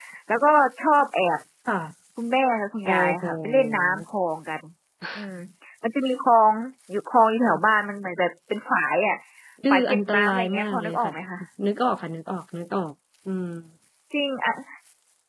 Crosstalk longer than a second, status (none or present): present